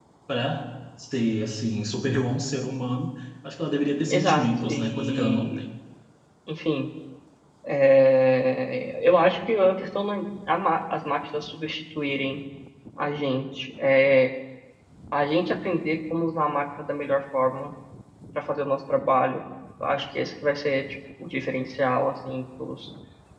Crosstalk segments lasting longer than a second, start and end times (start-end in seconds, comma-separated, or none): 4.1-5.6